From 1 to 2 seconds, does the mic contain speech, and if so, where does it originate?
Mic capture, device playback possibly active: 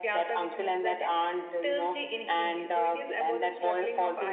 both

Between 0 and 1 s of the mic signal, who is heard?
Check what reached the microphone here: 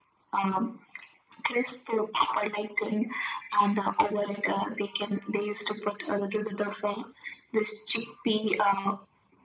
echo only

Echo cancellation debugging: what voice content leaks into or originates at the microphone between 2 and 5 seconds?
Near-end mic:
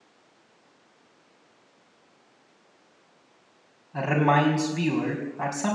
user only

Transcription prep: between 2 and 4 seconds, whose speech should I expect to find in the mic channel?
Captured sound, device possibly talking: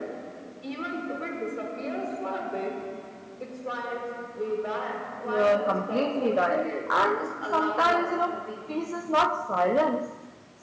echo only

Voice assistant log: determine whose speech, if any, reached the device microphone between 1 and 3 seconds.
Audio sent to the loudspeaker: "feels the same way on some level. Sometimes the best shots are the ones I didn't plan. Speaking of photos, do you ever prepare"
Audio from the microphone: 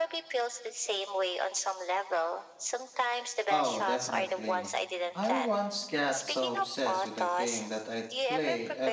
echo only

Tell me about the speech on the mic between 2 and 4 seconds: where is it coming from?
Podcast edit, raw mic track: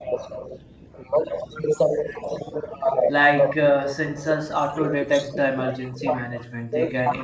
both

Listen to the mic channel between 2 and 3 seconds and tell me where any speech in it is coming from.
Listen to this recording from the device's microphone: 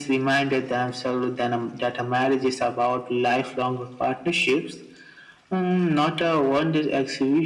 echo only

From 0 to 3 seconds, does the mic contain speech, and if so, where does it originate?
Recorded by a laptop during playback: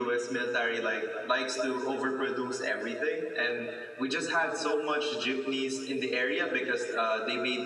echo only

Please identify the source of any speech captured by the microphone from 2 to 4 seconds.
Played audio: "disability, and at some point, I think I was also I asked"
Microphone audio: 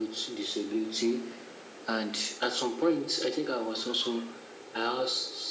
echo only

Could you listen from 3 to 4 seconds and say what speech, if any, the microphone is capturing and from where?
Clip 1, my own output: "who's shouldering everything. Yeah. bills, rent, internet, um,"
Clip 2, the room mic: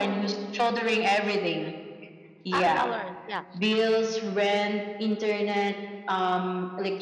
both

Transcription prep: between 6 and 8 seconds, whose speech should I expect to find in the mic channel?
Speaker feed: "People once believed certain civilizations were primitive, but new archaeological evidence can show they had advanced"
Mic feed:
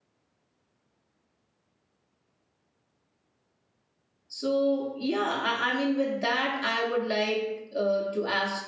user only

